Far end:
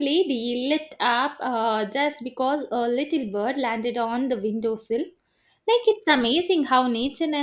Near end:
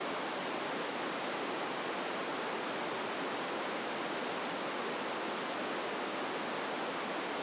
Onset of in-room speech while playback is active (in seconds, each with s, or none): none